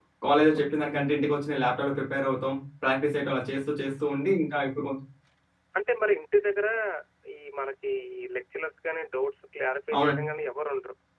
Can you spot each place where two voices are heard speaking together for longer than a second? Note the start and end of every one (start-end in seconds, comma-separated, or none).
none